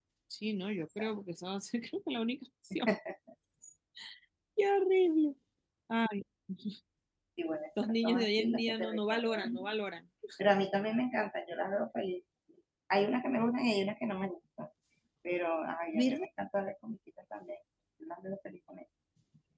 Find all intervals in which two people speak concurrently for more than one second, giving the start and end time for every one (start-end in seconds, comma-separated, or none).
7.8-9.6